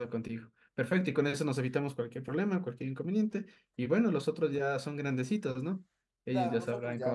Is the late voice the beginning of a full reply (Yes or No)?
Yes